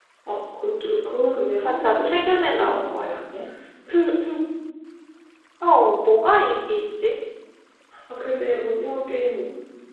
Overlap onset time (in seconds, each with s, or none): 1.6 s